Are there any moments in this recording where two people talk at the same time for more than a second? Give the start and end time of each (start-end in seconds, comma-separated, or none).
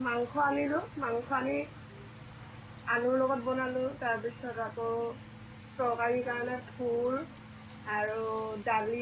none